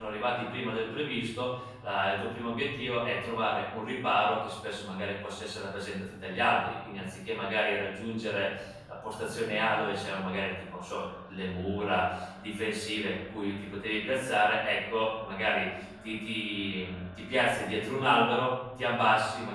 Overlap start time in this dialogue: none

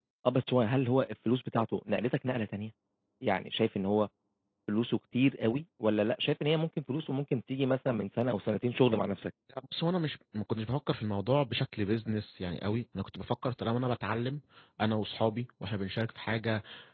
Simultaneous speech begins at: none

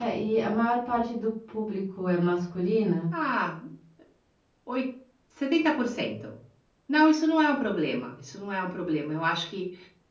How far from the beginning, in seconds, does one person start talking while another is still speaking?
none

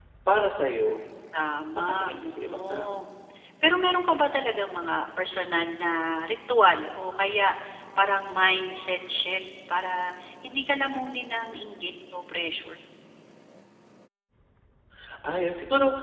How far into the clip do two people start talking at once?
1.8 s

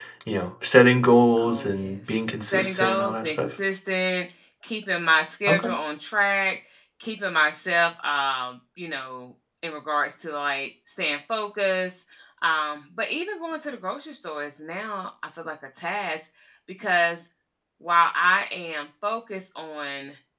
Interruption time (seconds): 1.4 s

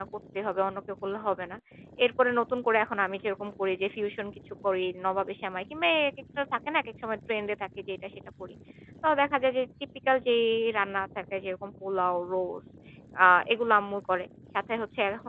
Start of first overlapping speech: none

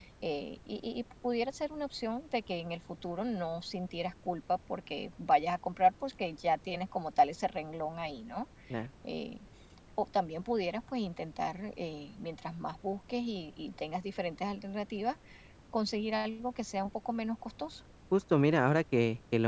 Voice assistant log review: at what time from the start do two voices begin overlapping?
none

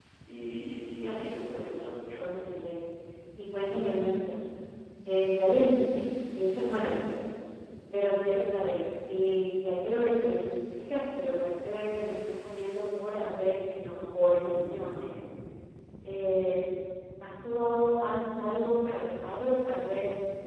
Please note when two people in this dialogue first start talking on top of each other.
1.0 s

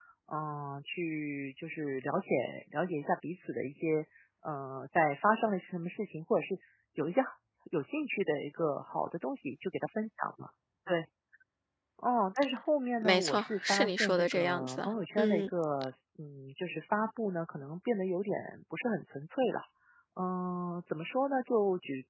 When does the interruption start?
13.0 s

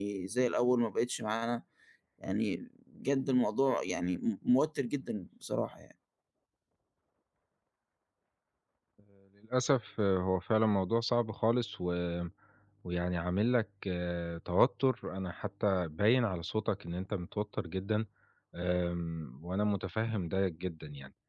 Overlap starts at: none

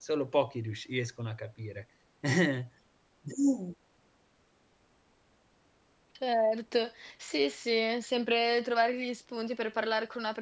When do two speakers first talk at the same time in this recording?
none

